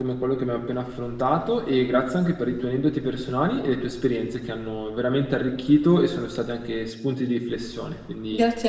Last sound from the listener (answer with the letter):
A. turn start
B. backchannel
A